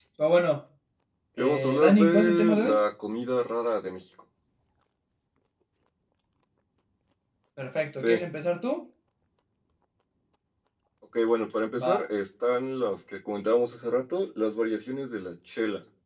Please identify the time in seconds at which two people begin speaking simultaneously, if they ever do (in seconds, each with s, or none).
1.4 s